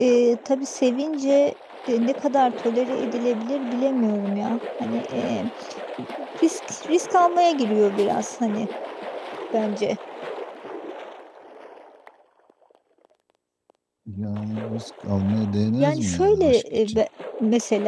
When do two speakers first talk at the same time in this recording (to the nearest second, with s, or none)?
16 s